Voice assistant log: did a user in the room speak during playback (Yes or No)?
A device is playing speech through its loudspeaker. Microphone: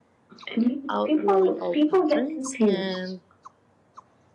Yes